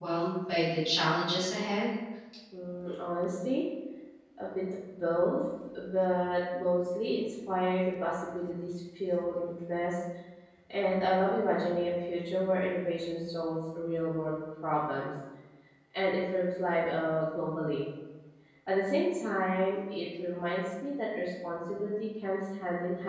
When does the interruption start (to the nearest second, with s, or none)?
none